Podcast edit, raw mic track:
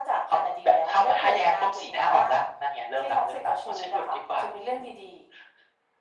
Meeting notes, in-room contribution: none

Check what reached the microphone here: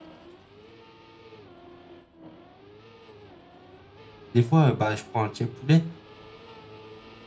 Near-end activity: present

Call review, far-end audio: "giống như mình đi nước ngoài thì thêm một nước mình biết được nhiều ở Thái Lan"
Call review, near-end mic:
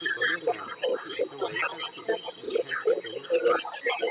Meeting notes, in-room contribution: present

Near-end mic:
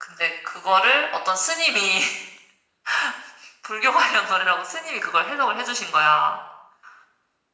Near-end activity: none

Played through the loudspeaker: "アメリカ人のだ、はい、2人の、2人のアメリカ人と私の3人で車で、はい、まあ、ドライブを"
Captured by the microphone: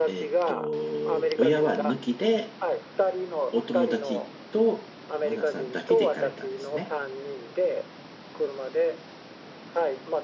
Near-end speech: present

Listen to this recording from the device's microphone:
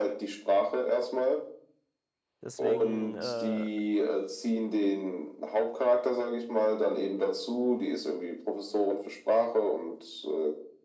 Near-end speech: present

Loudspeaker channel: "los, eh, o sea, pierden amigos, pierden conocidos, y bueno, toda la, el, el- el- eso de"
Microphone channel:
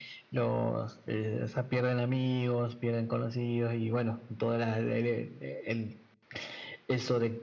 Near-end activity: none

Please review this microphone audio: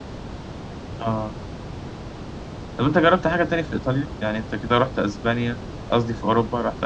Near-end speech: present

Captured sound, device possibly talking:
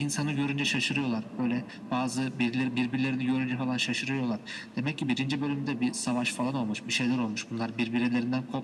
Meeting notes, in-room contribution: none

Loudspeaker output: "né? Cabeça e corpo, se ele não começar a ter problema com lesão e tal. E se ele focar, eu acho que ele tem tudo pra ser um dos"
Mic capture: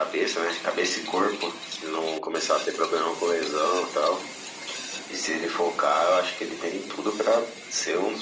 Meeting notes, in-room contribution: none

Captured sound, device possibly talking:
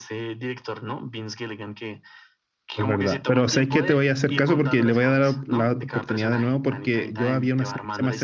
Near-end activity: present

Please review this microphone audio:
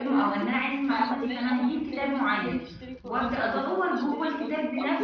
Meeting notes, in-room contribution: present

